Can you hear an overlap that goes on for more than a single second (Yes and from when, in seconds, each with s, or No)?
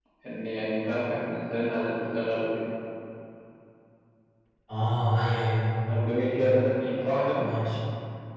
No